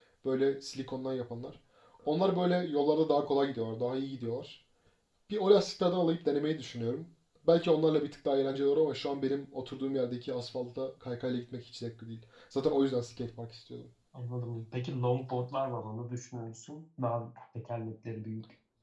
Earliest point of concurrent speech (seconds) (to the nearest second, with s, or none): none